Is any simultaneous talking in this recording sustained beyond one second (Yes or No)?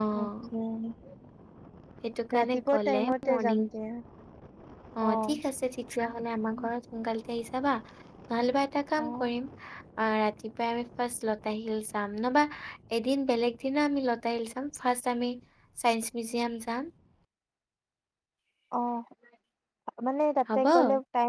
Yes